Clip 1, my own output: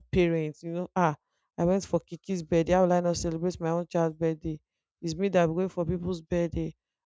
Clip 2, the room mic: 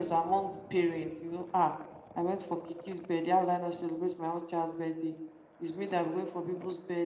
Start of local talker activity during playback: none

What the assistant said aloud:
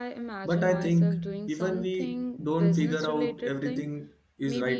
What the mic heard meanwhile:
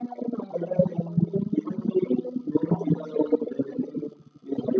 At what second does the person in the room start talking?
none

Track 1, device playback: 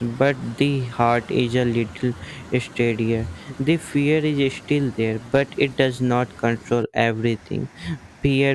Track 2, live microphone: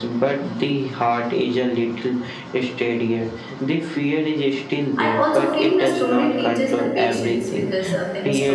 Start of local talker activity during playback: 5.0 s

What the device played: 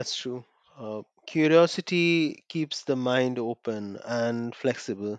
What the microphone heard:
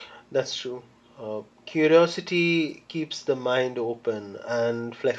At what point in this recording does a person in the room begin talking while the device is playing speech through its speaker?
none

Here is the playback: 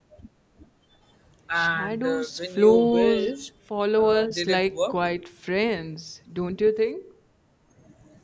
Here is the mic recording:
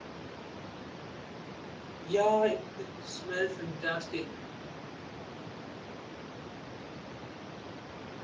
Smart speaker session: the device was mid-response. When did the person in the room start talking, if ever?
2.0 s

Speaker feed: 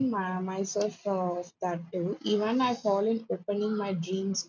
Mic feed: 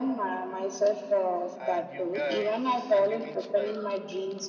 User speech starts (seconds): 1.6 s

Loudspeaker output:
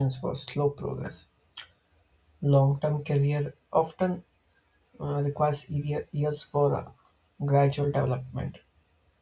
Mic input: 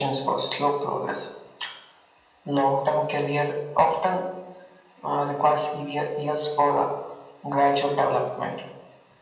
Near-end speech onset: none

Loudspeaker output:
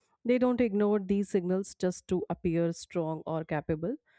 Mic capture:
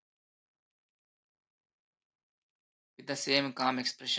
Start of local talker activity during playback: 3.0 s

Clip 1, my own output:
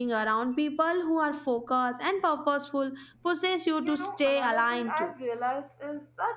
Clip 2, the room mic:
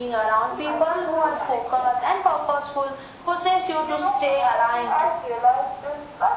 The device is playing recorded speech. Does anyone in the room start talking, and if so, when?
0.5 s

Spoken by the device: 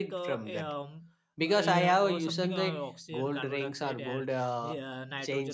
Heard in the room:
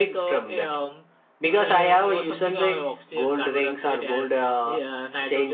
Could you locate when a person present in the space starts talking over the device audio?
none

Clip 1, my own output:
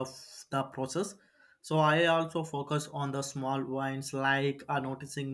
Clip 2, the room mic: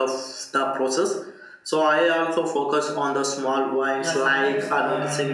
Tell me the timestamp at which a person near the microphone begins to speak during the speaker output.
4.0 s

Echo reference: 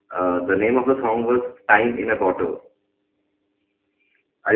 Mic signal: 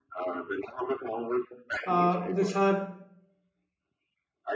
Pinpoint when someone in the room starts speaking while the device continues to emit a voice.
1.8 s

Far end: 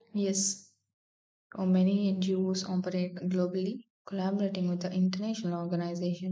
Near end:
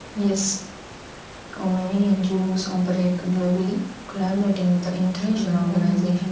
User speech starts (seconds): 5.2 s

